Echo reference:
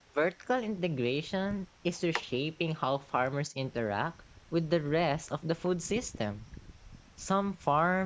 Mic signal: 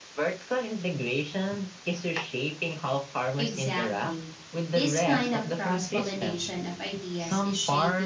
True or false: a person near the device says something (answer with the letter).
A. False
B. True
B